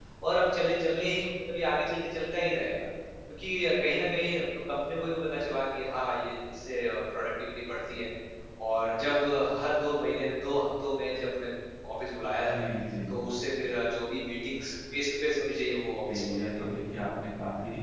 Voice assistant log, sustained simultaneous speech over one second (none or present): none